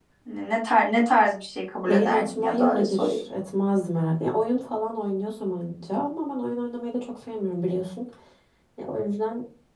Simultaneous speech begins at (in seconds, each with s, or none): 1.9 s